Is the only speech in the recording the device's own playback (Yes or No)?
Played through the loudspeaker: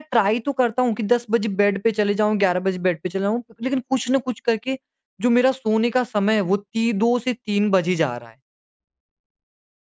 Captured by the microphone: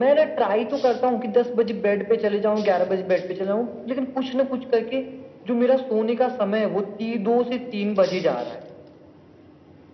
Yes